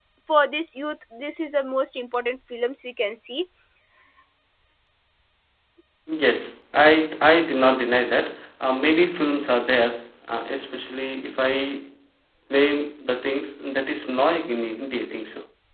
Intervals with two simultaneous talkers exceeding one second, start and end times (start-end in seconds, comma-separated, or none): none